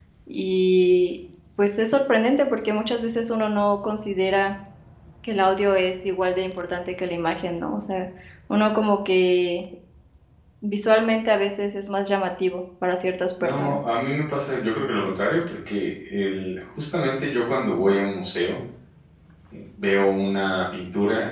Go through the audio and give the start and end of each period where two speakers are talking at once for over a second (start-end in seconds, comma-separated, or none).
none